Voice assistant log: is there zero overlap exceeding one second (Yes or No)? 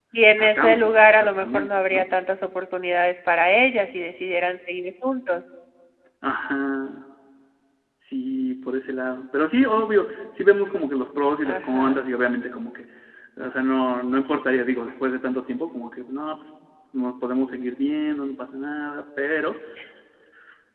No